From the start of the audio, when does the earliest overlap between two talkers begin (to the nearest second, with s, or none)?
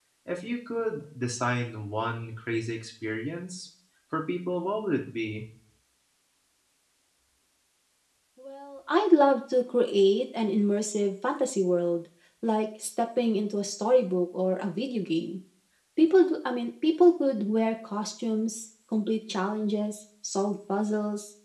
none